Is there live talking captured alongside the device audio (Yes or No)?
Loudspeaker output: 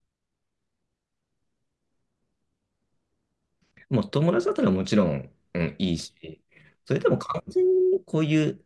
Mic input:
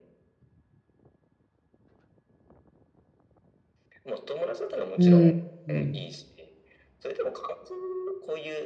Yes